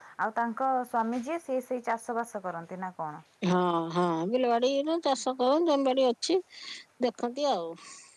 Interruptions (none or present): none